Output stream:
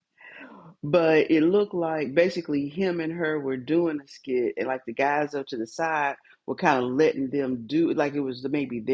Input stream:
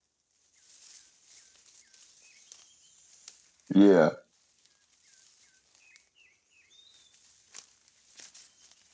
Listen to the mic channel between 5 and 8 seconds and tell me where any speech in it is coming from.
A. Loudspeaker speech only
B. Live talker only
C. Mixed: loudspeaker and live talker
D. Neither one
D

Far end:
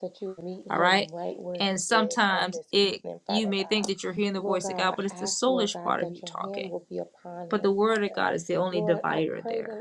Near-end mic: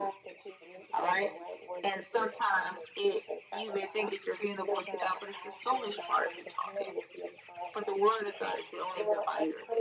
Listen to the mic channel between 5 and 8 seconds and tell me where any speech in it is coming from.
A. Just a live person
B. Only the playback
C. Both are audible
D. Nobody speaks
B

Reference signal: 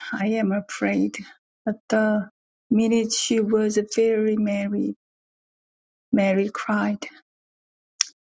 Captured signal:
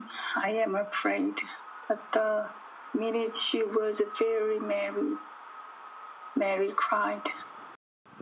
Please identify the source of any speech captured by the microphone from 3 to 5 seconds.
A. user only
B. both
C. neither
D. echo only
D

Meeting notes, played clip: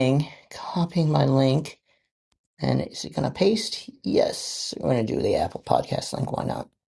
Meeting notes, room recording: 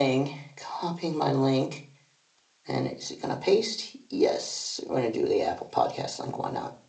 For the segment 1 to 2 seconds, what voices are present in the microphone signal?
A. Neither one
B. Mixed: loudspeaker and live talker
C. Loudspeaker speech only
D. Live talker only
C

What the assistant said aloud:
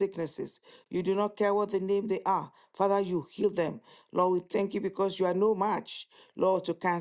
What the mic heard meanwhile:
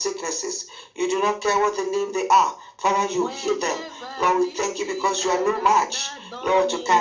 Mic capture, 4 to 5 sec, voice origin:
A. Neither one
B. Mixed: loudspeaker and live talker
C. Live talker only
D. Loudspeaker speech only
B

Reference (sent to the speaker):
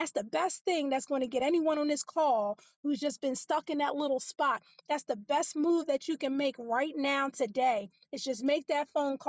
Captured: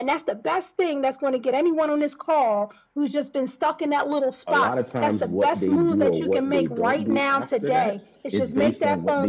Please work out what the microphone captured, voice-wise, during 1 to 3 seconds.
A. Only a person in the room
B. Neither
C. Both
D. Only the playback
D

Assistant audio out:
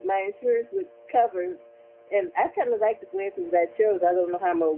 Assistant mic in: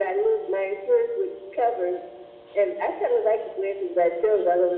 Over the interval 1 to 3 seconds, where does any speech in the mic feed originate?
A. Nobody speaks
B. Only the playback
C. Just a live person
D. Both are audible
B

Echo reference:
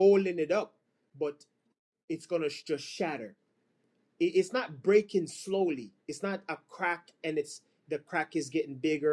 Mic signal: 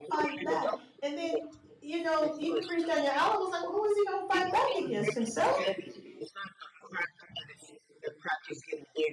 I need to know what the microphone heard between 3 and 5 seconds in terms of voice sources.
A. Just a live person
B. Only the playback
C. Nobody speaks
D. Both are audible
D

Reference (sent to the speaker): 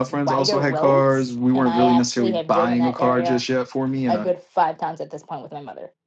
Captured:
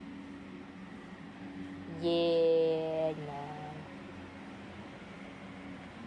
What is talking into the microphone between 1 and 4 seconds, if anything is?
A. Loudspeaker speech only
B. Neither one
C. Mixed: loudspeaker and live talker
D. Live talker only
D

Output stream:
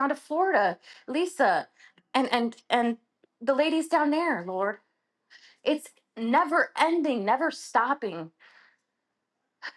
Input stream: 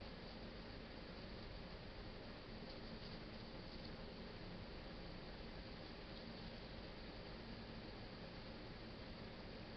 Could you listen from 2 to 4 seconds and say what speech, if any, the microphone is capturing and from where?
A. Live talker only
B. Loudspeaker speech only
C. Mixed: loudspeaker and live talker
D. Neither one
D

